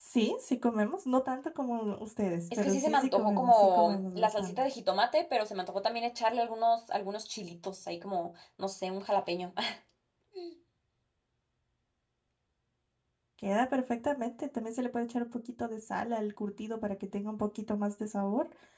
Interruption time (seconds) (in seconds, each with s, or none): 2.5 s